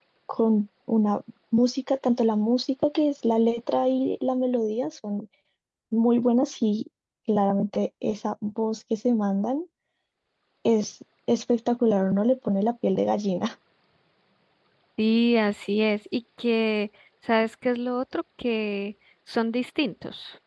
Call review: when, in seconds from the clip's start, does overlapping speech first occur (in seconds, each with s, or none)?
none